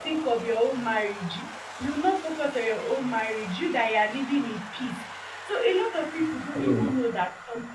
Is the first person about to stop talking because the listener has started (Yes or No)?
No